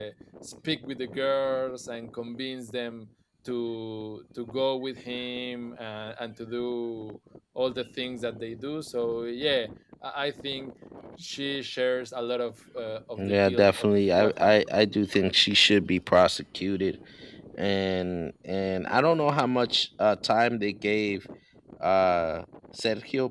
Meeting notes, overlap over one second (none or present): present